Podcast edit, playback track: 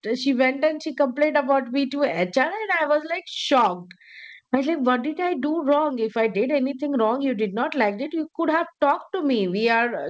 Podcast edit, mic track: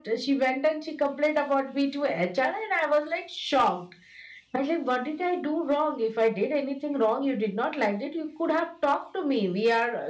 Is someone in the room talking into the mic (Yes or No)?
No